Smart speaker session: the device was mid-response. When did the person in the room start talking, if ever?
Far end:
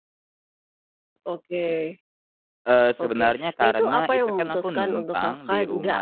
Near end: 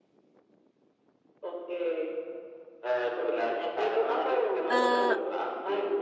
4.7 s

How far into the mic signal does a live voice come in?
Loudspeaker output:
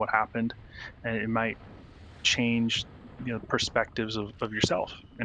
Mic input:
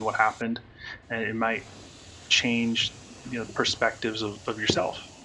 none

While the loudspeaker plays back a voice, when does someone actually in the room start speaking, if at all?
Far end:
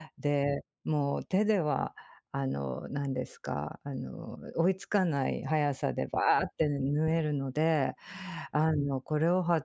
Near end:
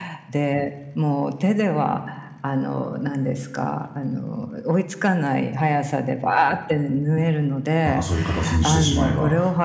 7.8 s

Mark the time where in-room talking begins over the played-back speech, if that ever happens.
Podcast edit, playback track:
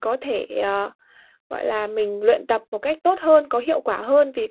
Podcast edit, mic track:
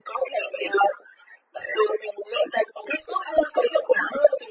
none

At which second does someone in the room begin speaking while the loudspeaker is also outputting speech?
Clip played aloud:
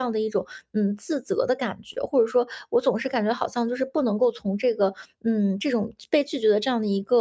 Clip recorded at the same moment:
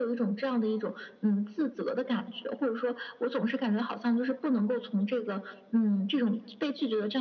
none

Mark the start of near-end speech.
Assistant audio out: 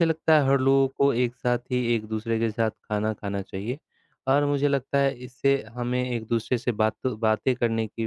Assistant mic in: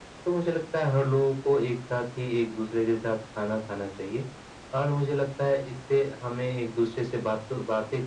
none

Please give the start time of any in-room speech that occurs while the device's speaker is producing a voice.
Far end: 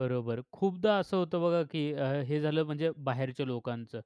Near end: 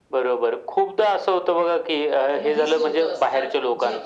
2.3 s

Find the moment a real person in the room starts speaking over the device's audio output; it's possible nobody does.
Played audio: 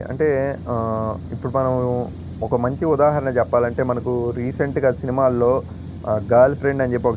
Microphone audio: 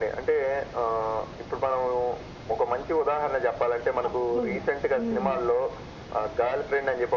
4.0 s

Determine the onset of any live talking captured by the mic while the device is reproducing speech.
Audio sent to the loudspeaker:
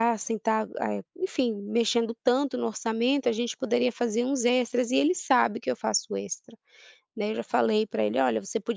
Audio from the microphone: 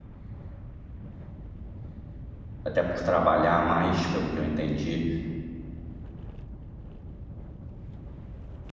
2.6 s

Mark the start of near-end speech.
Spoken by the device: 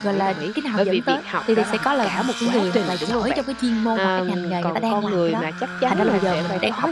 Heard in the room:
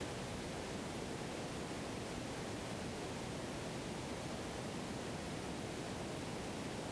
none

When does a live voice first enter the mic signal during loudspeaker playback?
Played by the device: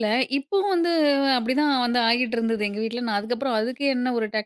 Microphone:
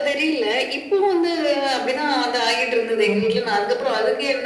3.1 s

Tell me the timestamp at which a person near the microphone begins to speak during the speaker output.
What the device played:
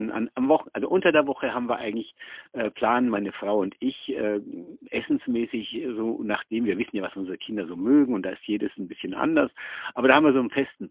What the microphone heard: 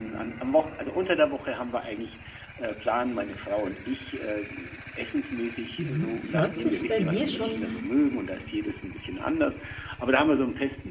5.8 s

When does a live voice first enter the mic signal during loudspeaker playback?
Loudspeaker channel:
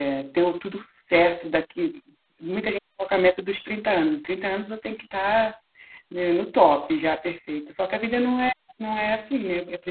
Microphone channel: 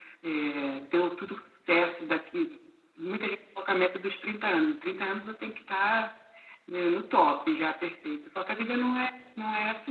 none

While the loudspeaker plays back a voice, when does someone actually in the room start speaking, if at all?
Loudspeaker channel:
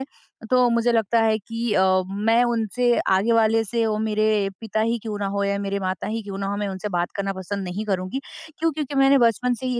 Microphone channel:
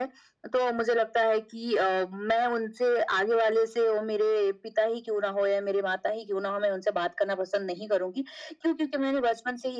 none

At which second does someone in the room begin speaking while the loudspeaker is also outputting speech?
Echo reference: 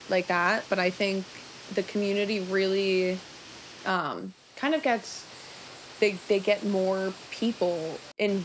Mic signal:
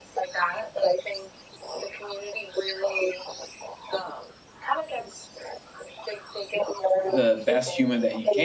7.1 s

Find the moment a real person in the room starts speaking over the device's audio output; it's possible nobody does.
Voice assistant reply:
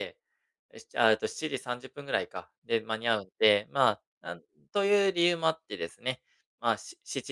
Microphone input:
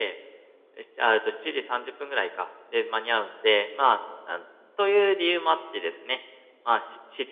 none

